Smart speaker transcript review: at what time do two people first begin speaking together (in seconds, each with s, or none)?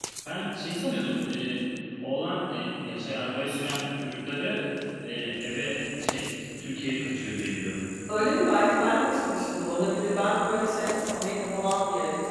none